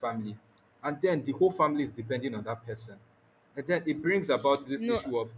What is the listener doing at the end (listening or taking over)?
listening